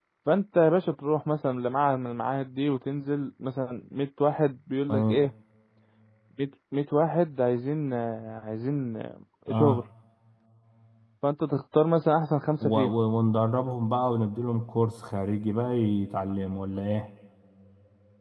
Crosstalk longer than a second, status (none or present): none